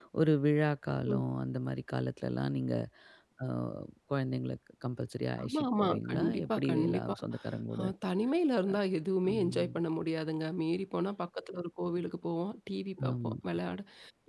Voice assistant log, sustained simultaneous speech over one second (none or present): present